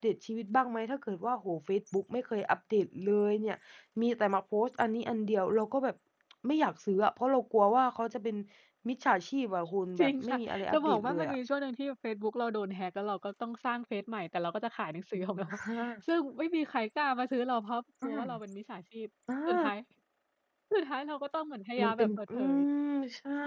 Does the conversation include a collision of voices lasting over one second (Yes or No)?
Yes